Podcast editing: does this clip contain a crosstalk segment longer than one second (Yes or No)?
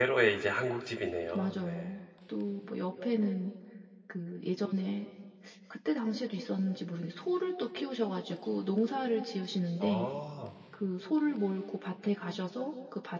No